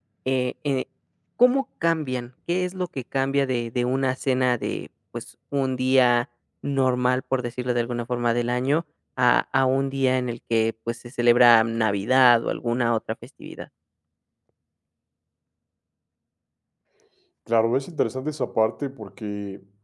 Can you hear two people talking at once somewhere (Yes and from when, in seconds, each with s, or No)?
No